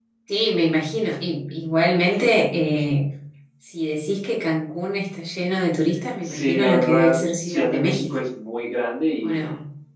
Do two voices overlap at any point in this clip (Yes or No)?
Yes